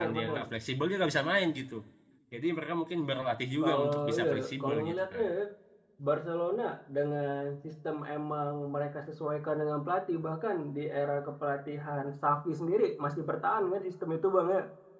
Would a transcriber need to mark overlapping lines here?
Yes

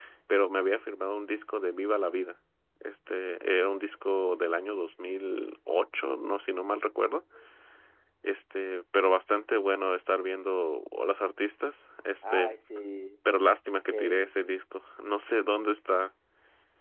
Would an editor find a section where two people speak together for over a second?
No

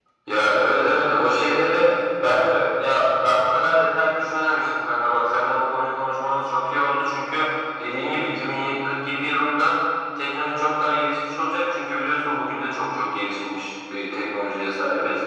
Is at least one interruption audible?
Yes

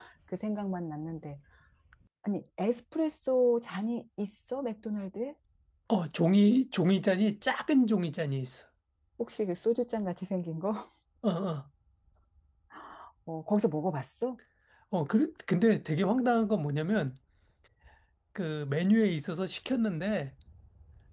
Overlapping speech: No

